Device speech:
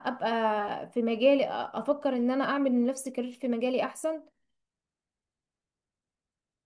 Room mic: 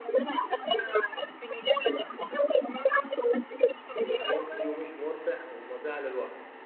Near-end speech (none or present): present